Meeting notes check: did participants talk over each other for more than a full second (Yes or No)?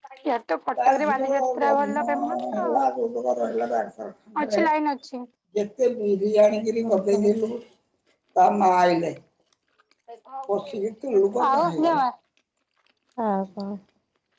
Yes